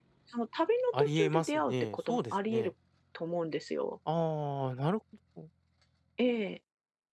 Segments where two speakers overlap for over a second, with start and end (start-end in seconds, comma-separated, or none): 0.9-2.7